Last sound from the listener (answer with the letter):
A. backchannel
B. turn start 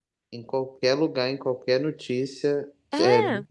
A